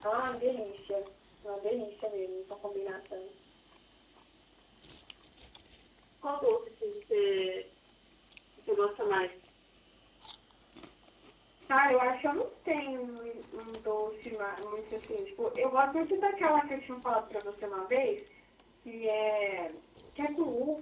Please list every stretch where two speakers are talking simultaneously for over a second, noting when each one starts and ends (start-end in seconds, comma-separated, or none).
none